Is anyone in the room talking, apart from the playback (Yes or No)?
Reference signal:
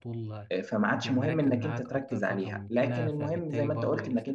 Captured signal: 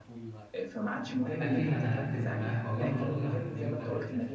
Yes